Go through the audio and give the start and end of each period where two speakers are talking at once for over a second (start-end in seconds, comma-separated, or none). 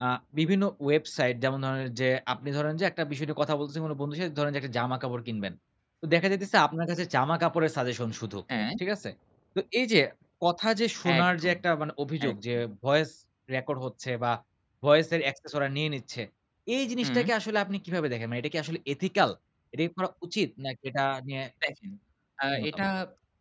none